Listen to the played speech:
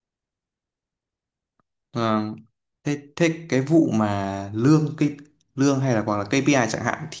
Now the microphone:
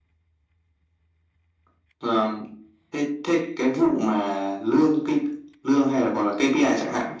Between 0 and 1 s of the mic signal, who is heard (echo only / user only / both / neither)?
neither